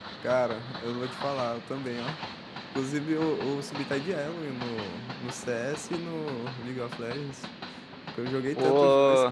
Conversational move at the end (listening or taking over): taking over